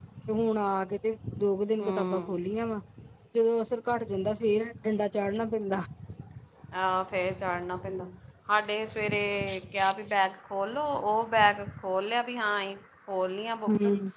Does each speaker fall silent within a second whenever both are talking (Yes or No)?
Yes